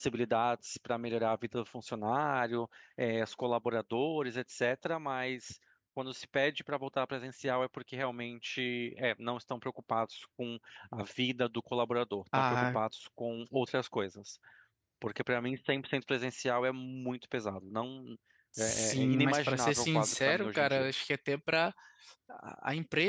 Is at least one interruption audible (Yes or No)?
Yes